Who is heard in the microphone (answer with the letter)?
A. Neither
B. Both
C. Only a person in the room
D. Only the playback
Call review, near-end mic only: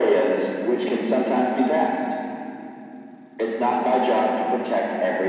D